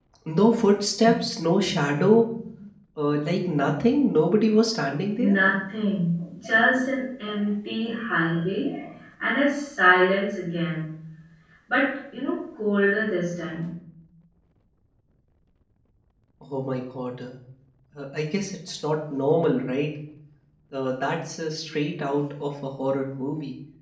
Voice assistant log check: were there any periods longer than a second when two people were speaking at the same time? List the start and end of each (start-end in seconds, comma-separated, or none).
none